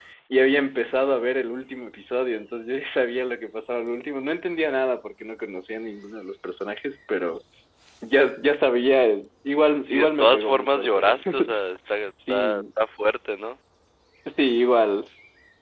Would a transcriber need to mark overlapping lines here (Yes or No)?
Yes